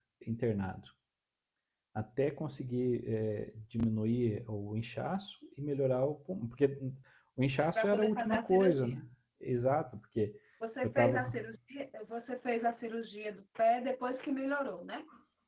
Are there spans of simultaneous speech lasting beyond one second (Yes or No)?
Yes